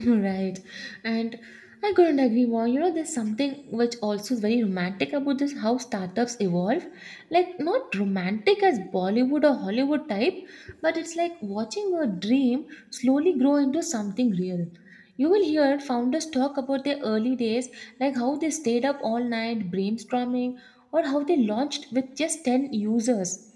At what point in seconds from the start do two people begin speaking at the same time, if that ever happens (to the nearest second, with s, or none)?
none